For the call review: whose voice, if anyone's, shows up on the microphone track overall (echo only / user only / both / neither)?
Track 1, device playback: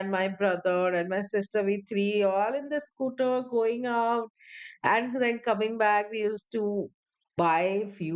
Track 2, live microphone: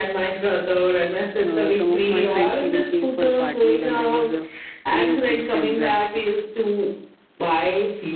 both